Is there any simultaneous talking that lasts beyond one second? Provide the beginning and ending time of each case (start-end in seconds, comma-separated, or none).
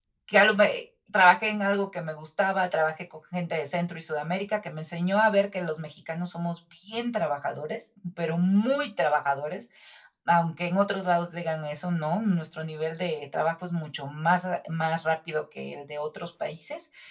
none